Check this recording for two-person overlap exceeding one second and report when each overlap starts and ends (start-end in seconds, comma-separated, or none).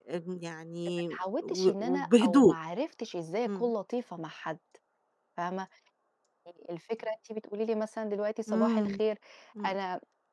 1.1-2.5